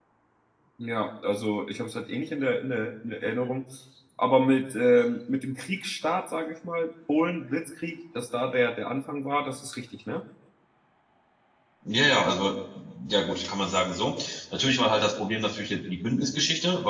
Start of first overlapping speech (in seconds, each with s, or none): none